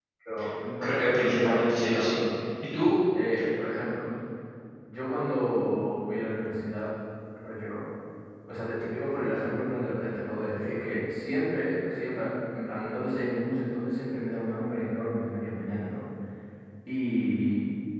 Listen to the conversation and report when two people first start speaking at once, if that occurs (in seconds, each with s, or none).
0.8 s